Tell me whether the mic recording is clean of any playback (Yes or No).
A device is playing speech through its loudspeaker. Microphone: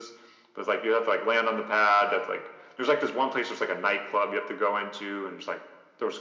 No